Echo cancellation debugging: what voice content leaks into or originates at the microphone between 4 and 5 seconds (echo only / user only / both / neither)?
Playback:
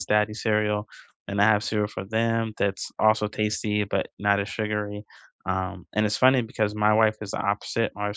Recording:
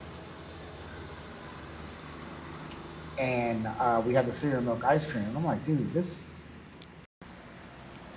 user only